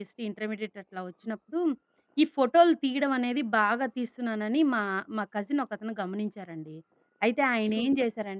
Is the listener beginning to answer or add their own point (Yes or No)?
Yes